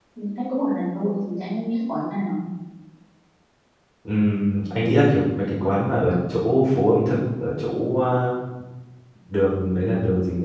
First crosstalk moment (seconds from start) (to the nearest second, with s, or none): none